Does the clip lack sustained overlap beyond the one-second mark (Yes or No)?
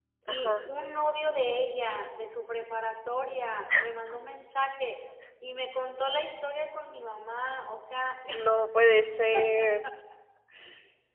Yes